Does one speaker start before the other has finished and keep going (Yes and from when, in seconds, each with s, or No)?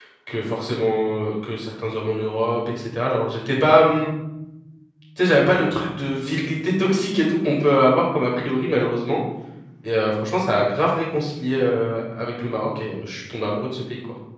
No